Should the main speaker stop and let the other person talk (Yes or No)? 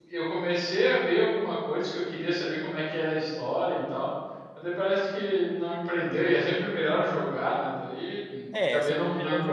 Yes